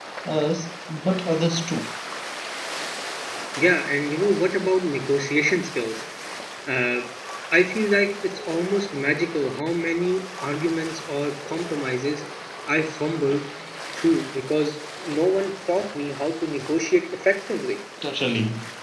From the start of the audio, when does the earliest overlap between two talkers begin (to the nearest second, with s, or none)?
none